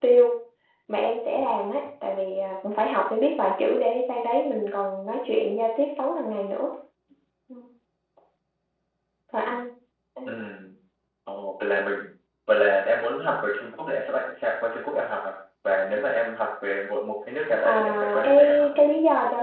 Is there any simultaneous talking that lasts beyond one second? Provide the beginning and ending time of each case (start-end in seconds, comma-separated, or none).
17.6-18.9